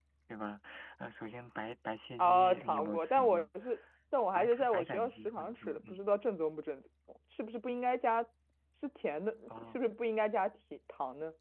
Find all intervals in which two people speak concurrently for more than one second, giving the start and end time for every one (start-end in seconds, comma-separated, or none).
2.2-3.4, 4.4-6.0